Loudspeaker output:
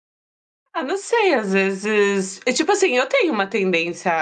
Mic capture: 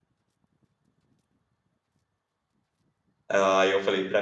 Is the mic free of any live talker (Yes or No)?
No